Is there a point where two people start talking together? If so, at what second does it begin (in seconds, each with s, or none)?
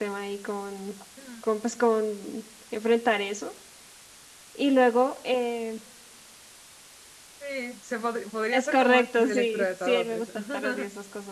8.5 s